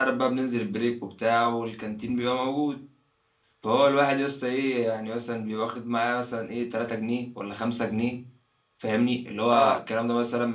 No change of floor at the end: Yes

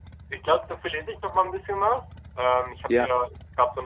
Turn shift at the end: No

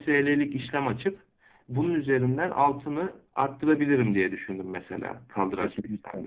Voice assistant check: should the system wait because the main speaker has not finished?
No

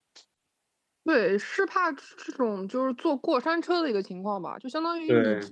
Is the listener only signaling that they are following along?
Yes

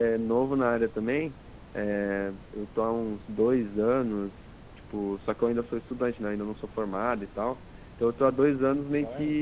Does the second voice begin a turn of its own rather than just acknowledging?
No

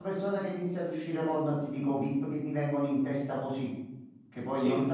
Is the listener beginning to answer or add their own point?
No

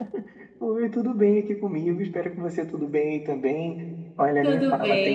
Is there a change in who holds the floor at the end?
No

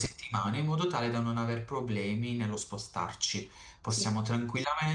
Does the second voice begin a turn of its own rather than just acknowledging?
No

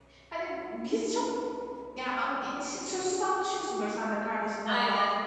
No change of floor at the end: Yes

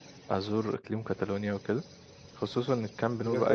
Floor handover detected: Yes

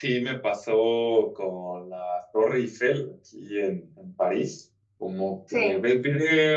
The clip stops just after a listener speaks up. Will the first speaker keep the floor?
Yes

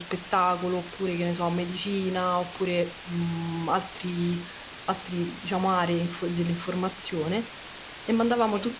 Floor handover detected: No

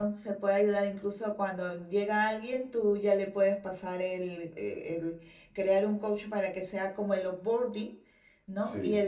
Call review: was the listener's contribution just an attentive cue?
Yes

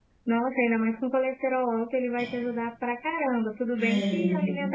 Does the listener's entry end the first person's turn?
No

